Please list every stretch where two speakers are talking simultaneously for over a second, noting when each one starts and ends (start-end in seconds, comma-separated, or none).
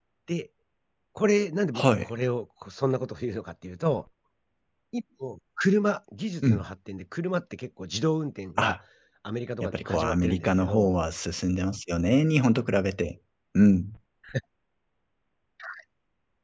9.6-10.9